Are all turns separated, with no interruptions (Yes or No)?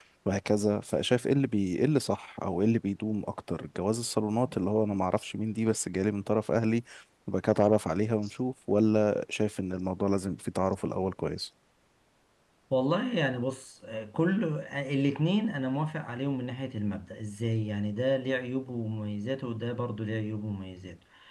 Yes